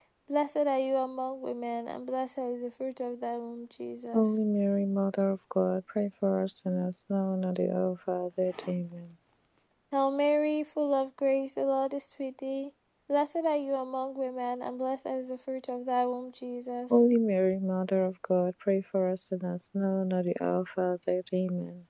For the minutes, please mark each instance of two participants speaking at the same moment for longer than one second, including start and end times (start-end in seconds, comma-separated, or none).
none